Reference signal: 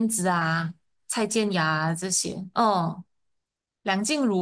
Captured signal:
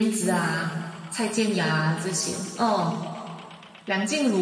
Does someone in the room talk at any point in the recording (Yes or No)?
No